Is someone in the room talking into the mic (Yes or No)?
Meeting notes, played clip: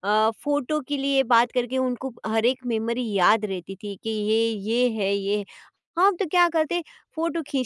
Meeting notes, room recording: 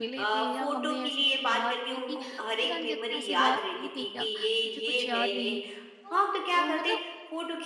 Yes